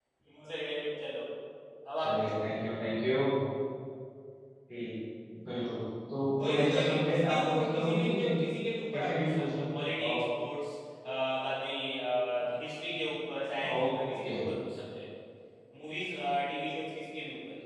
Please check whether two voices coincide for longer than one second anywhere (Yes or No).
Yes